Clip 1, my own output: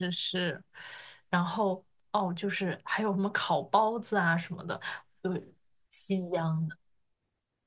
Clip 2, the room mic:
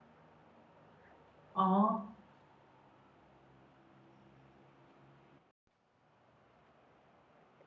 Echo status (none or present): none